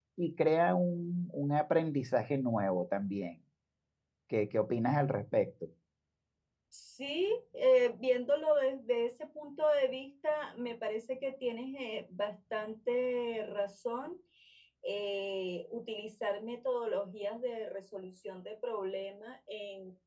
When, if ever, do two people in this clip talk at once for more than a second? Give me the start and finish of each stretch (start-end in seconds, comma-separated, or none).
none